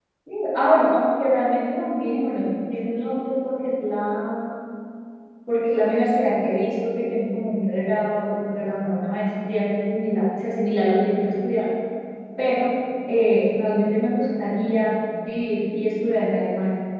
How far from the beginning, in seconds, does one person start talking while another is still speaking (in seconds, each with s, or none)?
none